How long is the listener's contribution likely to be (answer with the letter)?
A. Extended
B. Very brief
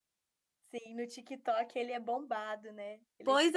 A